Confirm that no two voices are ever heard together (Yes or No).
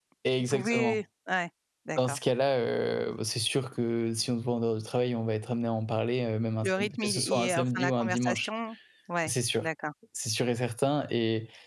No